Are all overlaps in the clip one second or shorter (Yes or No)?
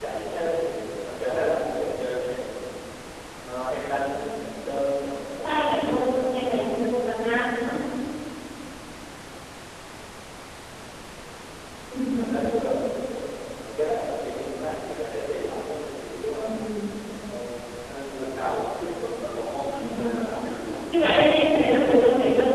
No